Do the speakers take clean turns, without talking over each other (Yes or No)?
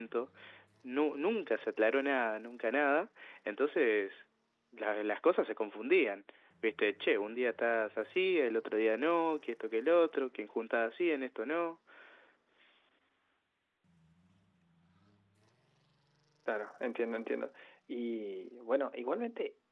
Yes